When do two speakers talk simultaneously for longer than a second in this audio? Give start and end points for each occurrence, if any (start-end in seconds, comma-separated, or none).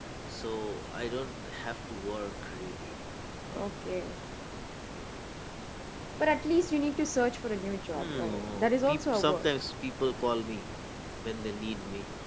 7.9-9.5